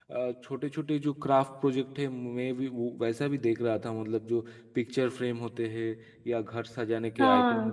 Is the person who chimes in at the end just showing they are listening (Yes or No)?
Yes